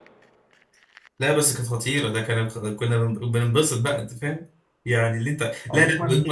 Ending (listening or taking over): listening